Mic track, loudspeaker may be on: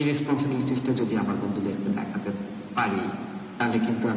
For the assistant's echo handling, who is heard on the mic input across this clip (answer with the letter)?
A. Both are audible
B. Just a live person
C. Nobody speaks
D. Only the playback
D